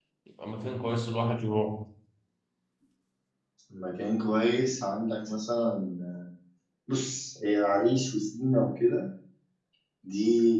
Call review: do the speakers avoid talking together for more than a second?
Yes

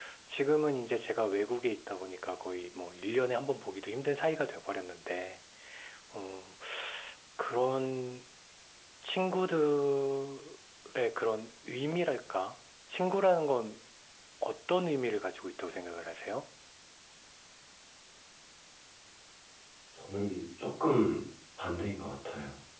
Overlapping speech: No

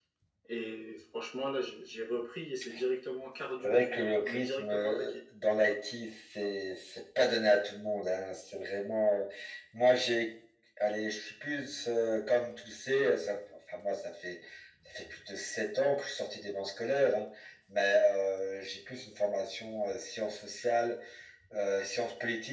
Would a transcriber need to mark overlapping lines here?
Yes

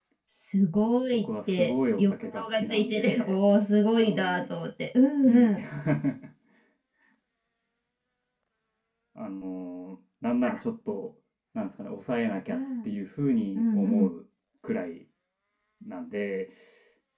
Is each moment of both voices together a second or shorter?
No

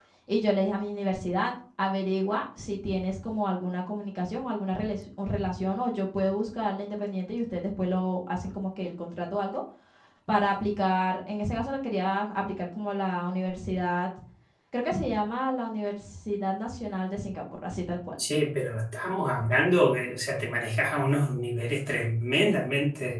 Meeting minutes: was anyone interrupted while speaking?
No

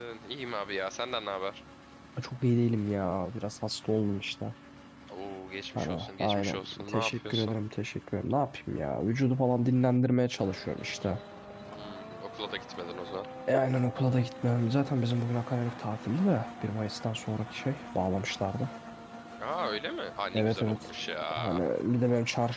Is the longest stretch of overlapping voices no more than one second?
No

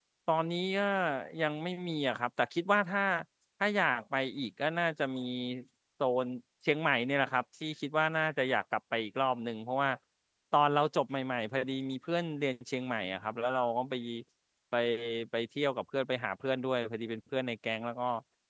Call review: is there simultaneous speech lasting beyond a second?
No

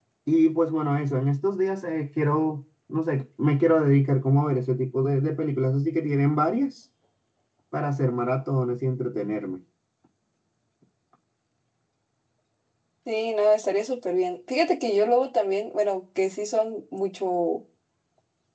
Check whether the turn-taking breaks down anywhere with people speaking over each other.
No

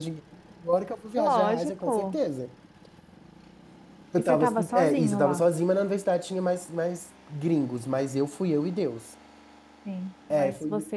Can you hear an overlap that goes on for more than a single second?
Yes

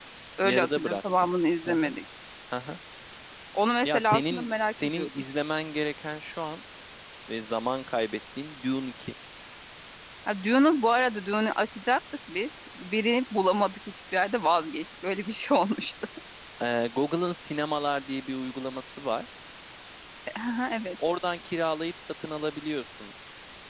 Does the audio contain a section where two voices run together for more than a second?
Yes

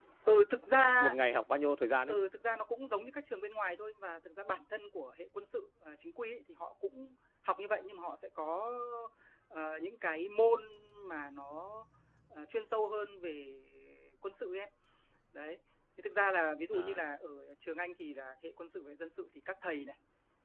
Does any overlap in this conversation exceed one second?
No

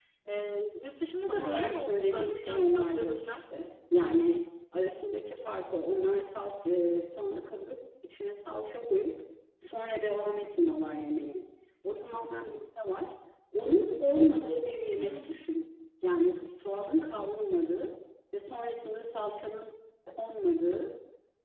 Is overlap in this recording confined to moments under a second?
No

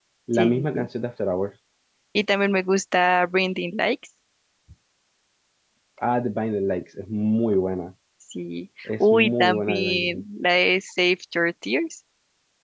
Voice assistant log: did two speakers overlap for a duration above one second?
Yes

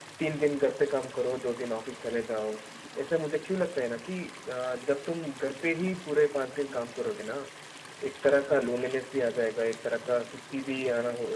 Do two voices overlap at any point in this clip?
No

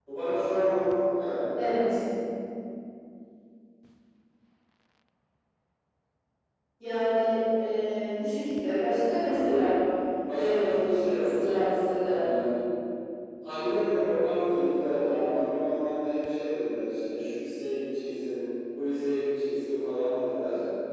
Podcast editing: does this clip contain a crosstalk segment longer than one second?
Yes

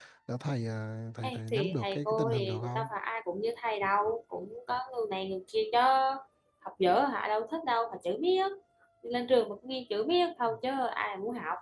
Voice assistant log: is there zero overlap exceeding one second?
No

